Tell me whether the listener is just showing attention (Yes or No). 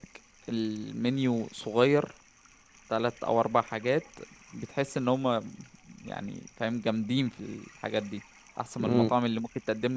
Yes